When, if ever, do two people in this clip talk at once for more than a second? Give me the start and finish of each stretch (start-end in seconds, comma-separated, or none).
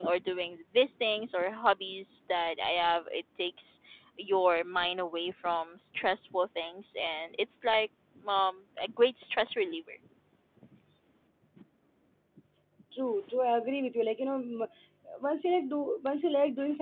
none